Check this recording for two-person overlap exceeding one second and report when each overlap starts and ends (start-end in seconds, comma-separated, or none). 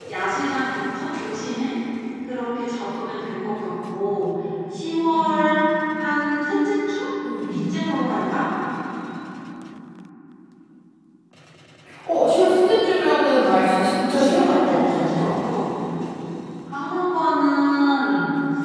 13.8-15.3